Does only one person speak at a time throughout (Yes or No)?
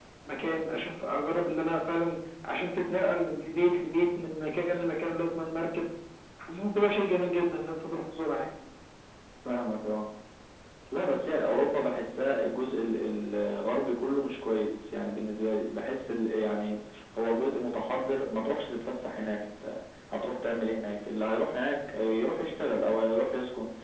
Yes